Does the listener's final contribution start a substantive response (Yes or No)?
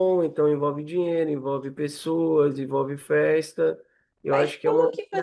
Yes